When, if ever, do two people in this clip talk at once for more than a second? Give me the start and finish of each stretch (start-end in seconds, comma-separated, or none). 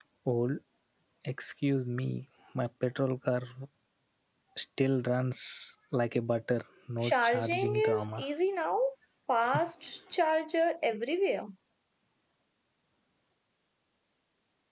7.0-8.2